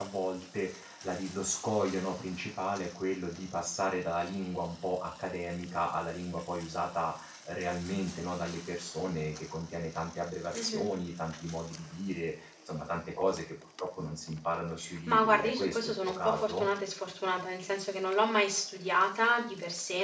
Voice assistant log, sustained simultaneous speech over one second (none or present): present